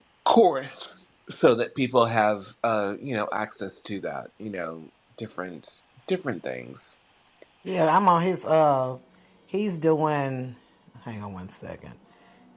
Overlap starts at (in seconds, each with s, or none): none